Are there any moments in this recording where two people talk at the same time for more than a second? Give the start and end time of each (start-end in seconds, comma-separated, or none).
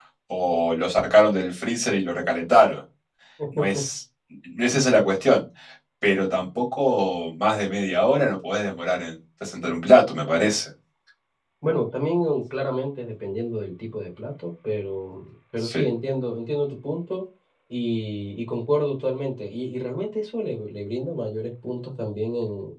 none